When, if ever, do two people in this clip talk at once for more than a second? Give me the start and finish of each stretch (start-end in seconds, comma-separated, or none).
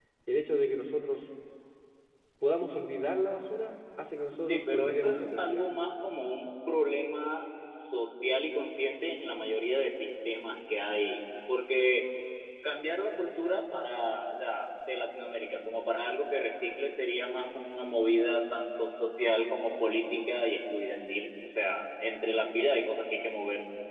4.4-5.6